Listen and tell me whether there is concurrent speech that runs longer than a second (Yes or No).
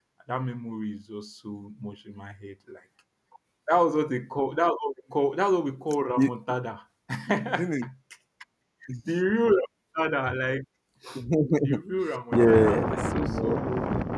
Yes